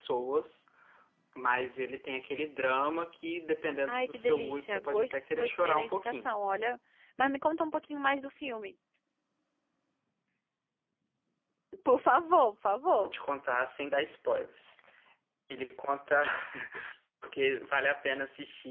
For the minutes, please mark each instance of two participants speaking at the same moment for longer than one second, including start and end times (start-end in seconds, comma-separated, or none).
3.9-6.4